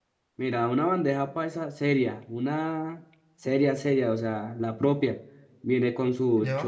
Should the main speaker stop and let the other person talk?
No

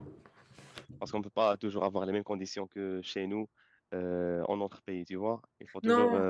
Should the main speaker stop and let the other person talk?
No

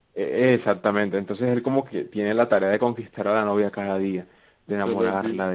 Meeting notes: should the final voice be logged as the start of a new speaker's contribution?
No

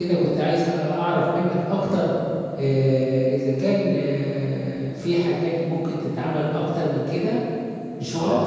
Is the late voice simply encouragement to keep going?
No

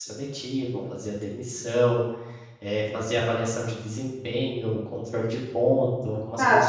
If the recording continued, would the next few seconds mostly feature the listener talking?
Yes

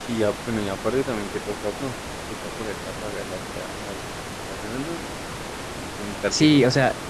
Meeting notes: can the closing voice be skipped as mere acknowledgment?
No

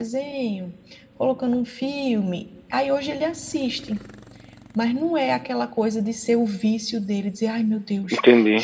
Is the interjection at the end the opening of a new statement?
No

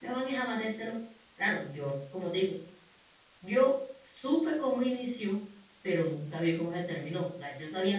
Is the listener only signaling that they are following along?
No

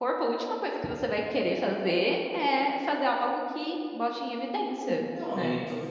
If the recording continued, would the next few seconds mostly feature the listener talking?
Yes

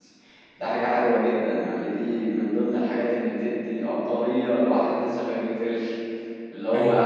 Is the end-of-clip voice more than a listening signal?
No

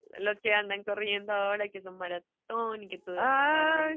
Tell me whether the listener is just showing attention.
No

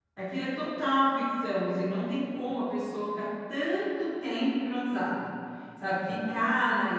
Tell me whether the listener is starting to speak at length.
No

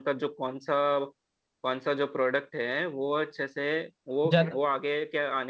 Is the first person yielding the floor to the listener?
No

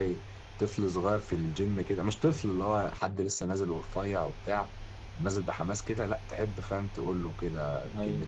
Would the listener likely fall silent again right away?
Yes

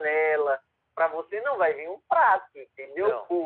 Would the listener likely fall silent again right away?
Yes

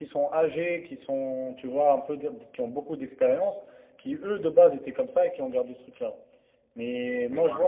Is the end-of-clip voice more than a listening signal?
No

